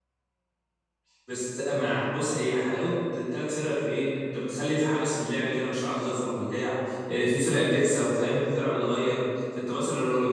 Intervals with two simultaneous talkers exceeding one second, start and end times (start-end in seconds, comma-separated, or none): none